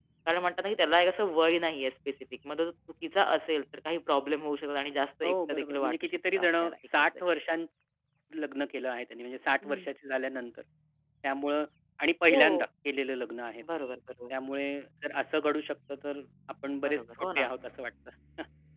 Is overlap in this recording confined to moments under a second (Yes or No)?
No